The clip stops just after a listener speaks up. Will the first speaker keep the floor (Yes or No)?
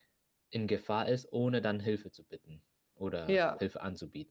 Yes